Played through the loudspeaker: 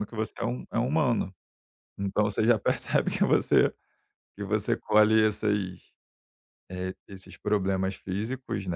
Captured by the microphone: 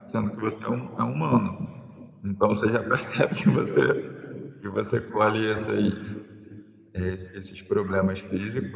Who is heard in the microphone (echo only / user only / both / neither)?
echo only